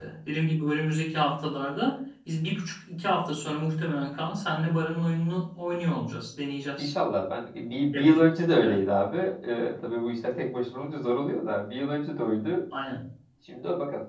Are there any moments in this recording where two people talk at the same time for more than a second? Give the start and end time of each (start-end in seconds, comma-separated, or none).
none